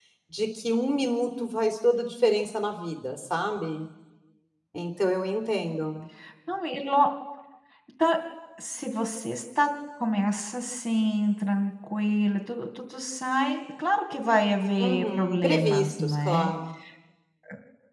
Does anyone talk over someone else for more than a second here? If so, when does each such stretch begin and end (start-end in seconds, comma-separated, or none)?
14.8-16.5